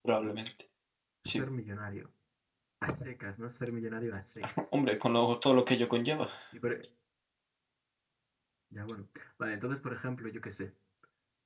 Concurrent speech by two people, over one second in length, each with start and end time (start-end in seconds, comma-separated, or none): none